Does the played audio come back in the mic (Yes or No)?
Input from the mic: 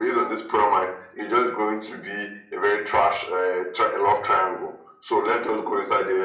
Yes